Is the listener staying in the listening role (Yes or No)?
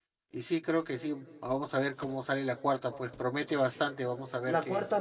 No